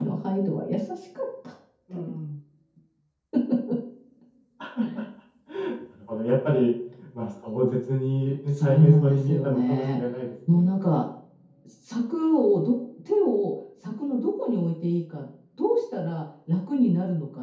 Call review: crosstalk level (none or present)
present